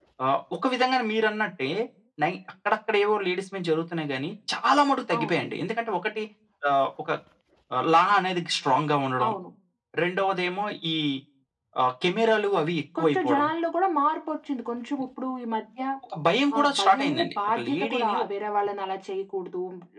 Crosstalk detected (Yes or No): Yes